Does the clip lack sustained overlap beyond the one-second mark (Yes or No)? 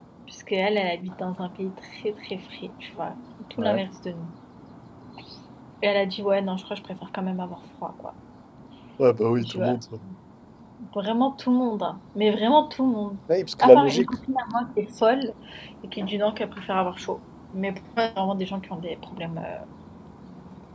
Yes